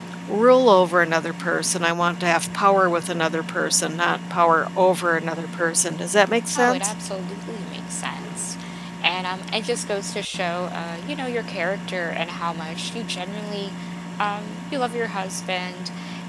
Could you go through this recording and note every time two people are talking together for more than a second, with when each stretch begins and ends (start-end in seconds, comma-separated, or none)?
none